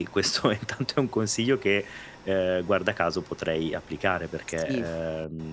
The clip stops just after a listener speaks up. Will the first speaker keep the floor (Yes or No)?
Yes